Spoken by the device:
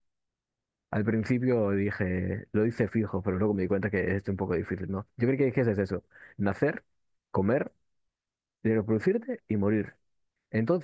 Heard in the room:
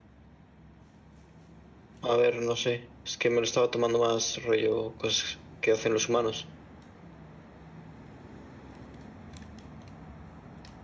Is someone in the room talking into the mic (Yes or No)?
Yes